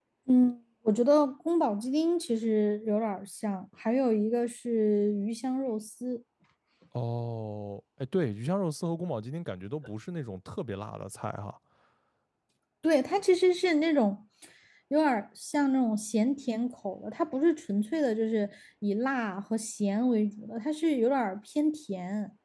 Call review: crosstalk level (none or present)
none